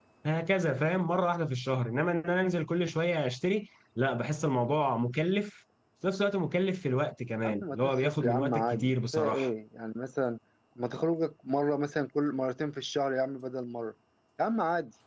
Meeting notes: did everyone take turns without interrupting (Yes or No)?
No